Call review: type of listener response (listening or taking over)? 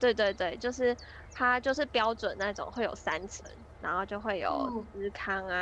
listening